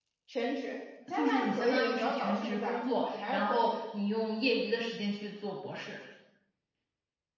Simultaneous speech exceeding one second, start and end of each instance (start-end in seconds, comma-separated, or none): 1.1-3.8